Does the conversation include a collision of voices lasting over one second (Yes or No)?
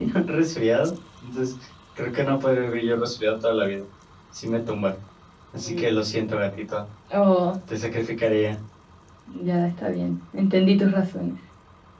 No